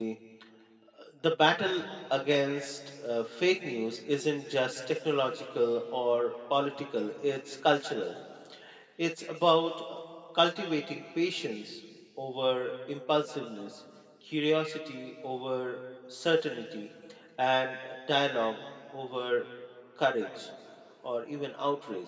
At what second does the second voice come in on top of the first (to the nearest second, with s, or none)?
none